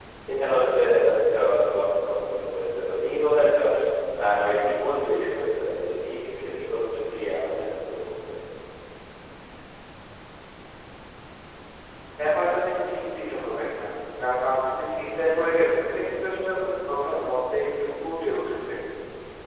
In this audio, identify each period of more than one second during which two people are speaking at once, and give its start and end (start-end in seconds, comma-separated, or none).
none